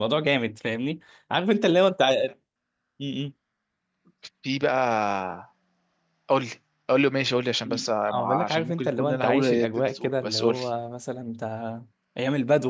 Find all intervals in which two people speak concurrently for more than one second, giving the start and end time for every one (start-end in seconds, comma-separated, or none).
7.6-10.6